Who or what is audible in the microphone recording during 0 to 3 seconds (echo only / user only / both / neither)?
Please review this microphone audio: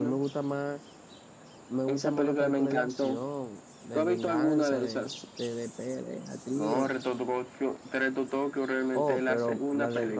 both